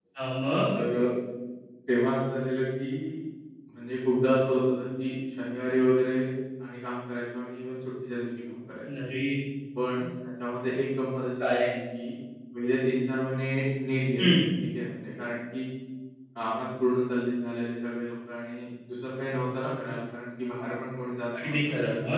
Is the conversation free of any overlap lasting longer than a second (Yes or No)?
Yes